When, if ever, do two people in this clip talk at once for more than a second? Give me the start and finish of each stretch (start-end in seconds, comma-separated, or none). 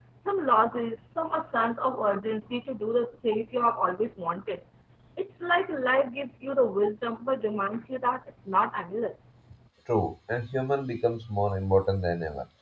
none